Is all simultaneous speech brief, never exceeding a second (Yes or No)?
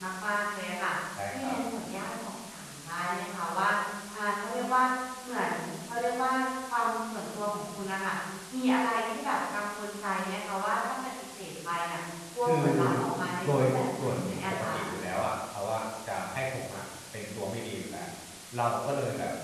No